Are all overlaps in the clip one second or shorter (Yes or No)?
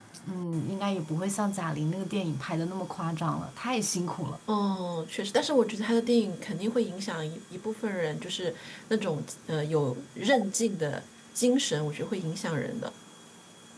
Yes